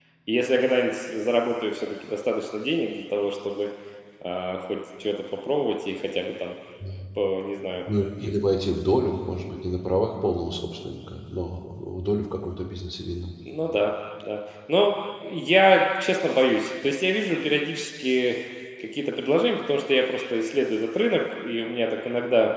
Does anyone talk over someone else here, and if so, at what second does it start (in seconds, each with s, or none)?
none